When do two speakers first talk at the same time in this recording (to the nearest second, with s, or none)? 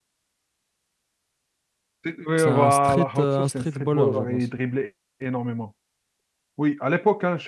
2 s